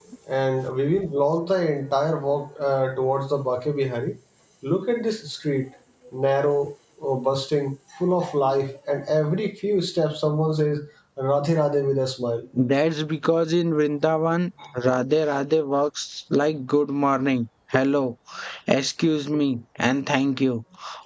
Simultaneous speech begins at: none

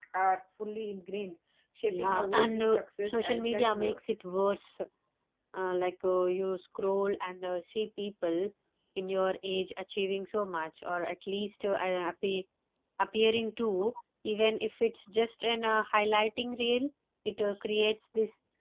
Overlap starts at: 1.8 s

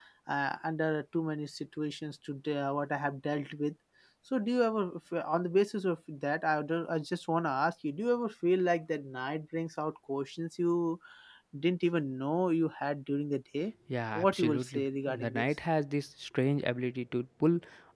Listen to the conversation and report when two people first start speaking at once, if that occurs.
14.2 s

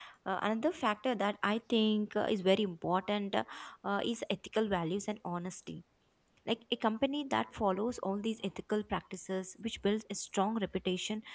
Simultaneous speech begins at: none

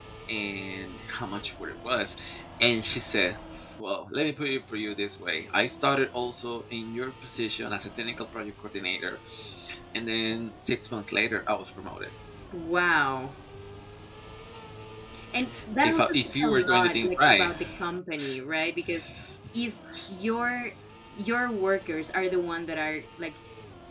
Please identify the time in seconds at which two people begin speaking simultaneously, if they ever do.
15.8 s

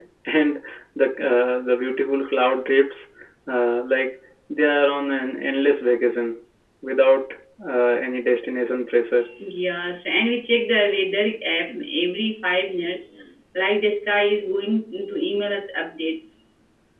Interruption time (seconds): none

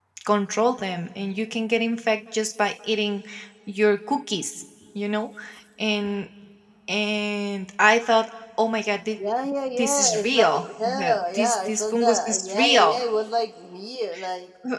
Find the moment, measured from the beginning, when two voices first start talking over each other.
9.8 s

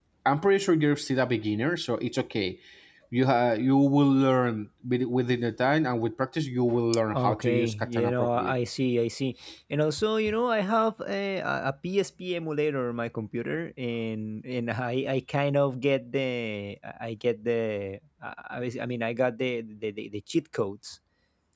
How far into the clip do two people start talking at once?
7.1 s

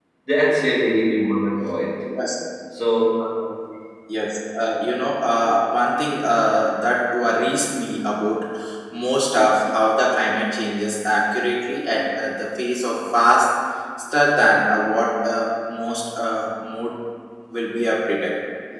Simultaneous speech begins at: none

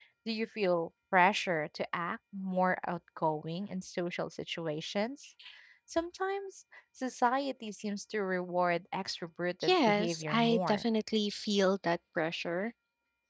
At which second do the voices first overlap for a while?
9.6 s

